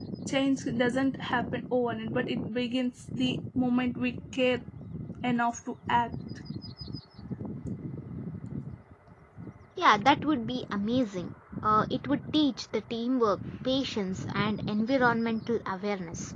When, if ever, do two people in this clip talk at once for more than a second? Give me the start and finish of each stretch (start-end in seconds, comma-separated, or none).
none